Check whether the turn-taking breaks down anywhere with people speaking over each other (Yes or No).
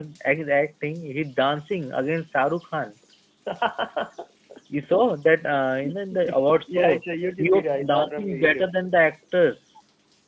Yes